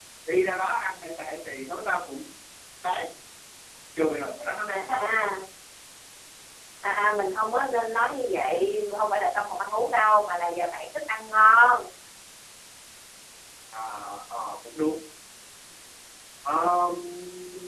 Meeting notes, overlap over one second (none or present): none